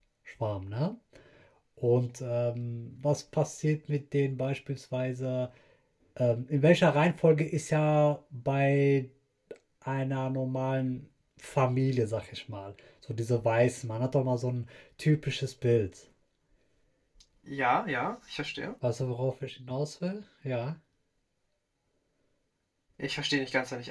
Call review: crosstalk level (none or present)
none